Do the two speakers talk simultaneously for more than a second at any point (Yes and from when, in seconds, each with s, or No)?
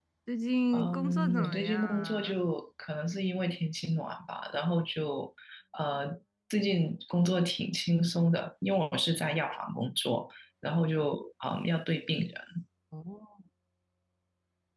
Yes, from 0.7 s